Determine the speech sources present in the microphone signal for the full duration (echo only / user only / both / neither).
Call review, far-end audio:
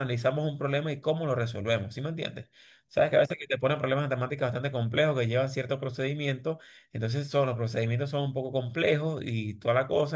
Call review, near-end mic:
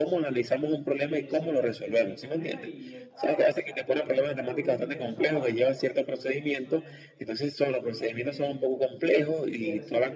both